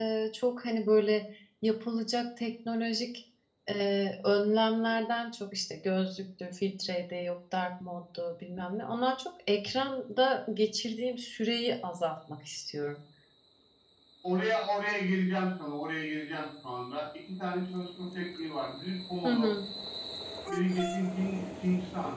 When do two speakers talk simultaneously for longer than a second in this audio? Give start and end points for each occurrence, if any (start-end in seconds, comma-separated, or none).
none